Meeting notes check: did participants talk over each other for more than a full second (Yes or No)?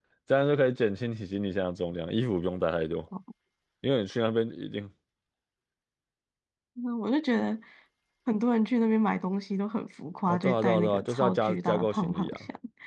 Yes